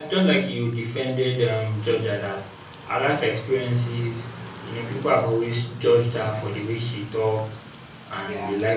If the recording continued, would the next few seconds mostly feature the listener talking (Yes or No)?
No